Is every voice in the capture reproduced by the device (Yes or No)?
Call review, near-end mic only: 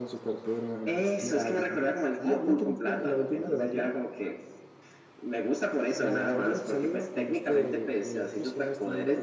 Yes